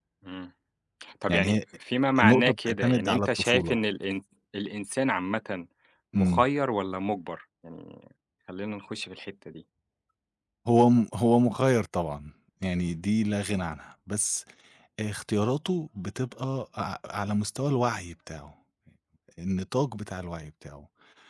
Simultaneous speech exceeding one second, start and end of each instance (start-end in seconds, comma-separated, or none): 2.2-3.8